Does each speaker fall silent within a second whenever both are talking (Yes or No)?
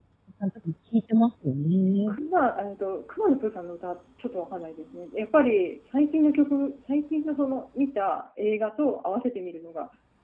Yes